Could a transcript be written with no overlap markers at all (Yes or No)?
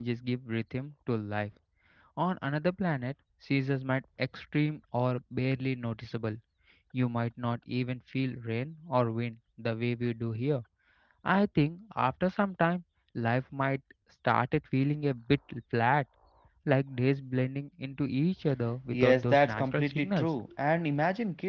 No